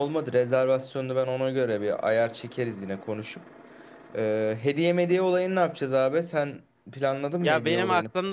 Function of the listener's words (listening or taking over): taking over